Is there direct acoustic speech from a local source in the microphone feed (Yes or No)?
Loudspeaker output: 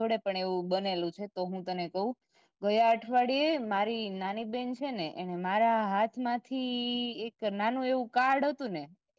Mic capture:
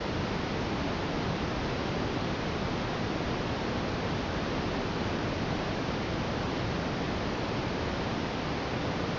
No